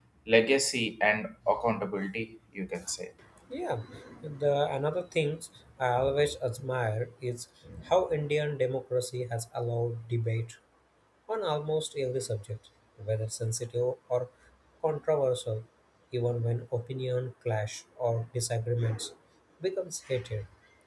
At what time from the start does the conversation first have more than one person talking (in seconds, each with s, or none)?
none